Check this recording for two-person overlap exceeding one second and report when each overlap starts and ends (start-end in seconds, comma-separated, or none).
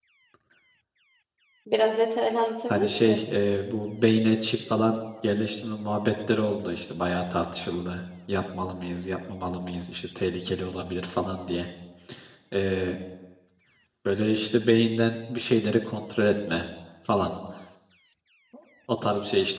none